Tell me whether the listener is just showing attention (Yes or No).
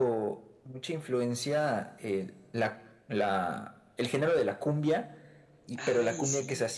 Yes